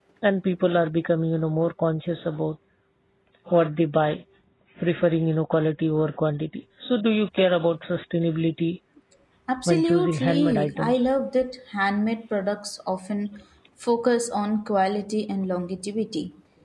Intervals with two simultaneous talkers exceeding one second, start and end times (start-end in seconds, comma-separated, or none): 9.7-11.1